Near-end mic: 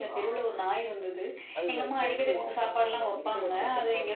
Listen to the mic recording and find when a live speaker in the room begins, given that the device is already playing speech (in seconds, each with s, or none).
1.6 s